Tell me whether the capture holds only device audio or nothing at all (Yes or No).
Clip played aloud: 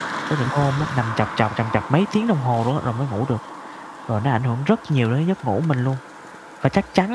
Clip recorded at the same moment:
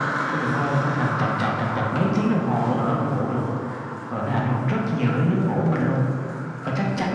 Yes